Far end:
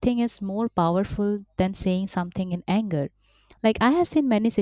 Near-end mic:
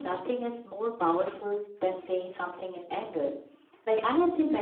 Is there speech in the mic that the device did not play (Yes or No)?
No